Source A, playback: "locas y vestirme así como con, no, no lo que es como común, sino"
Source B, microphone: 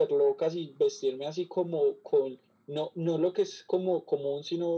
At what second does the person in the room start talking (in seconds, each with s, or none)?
none